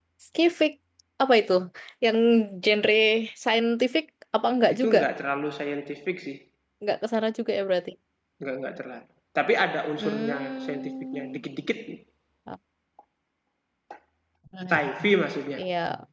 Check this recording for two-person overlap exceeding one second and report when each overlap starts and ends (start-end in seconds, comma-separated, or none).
10.0-11.4